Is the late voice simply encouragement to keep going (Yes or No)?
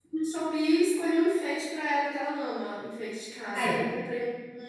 Yes